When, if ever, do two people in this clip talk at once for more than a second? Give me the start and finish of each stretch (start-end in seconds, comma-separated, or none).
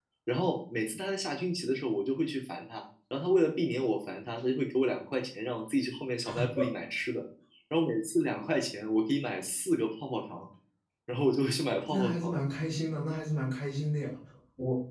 none